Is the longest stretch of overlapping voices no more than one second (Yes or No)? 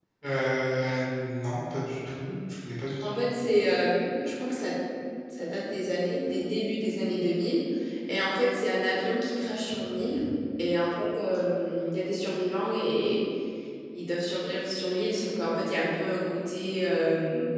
Yes